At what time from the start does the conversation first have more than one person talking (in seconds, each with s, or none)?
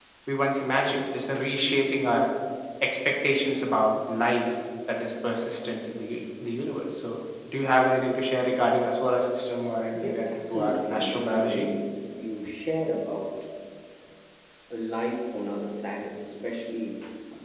10.0 s